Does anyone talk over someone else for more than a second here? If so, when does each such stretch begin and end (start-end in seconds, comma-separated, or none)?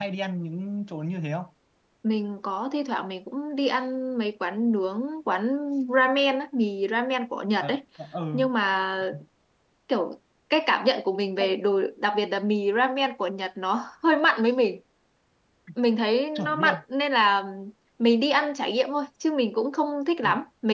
none